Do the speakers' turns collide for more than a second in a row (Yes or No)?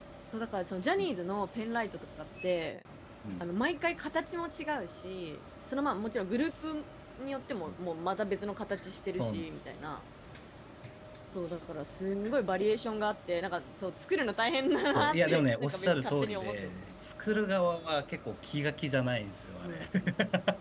Yes